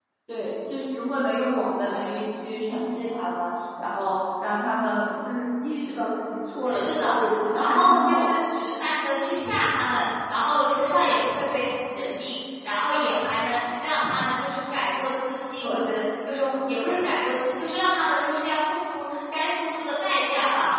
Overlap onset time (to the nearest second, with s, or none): 7 s